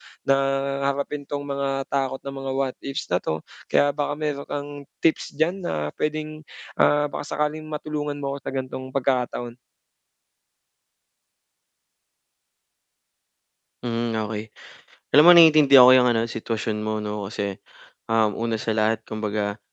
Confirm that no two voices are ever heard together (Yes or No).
Yes